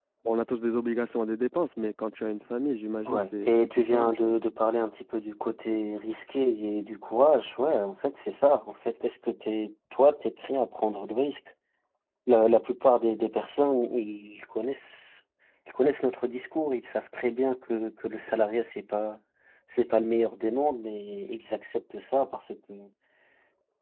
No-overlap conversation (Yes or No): No